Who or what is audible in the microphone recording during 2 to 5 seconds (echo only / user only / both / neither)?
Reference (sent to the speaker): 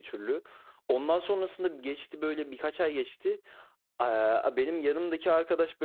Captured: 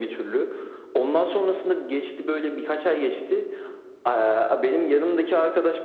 echo only